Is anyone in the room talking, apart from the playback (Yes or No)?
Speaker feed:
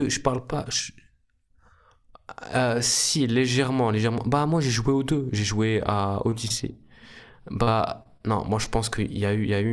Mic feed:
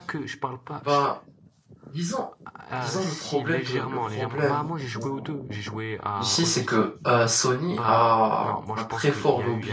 Yes